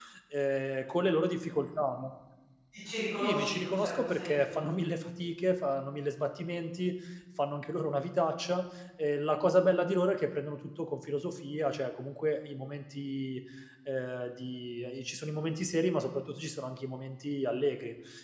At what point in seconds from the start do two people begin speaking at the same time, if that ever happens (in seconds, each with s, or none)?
3.2 s